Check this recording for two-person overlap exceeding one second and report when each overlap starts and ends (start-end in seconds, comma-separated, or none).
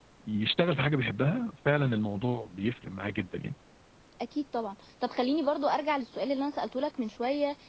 none